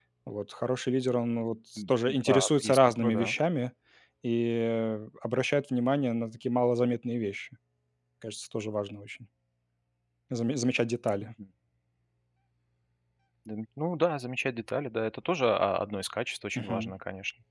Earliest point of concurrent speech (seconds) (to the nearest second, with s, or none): 2 s